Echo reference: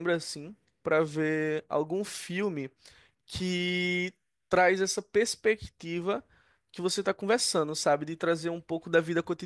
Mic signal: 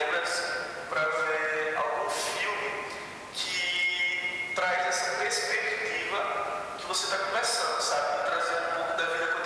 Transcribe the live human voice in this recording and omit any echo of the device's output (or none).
none